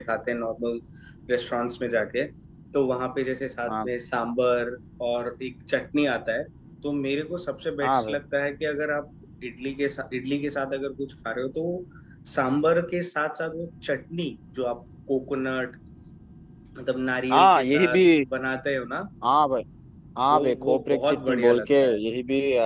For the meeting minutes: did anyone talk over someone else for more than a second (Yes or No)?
Yes